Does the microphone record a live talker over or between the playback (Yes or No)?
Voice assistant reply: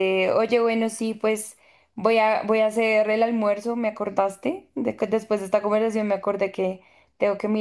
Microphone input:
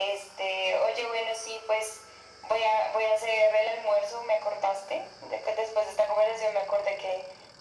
No